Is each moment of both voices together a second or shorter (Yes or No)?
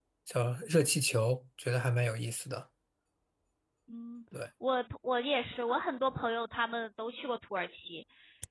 Yes